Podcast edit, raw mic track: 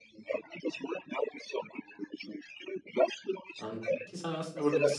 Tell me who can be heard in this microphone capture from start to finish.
both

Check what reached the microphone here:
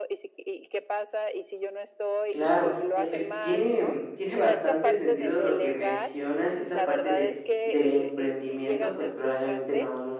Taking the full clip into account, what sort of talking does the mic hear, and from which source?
both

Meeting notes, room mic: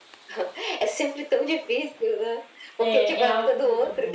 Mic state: both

